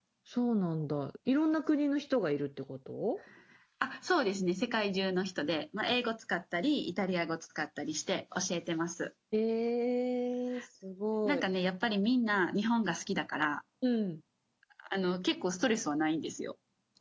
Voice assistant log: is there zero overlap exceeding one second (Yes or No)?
Yes